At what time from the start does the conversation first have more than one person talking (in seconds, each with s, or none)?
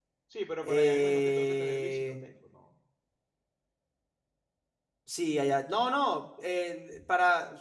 0.6 s